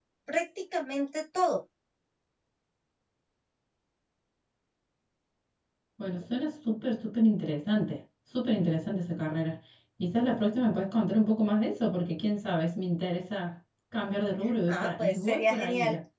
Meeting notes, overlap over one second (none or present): present